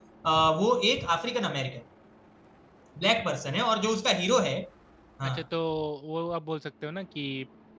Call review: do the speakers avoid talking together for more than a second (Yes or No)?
Yes